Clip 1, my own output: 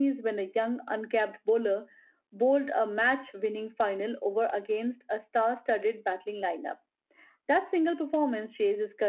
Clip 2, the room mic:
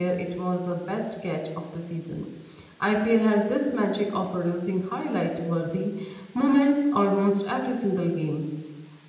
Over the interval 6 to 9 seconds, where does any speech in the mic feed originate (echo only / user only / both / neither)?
user only